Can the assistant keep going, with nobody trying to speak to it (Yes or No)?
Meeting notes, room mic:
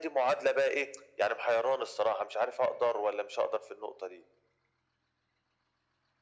Yes